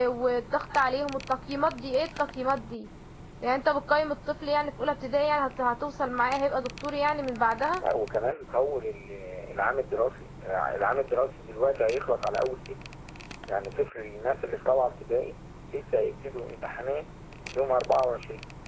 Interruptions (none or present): none